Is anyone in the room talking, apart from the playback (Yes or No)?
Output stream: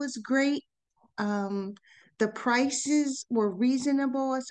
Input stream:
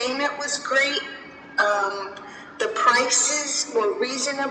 No